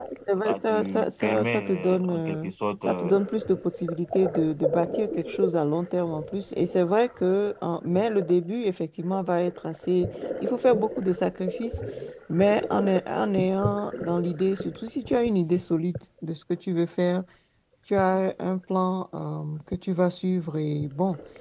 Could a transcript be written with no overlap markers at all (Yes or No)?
No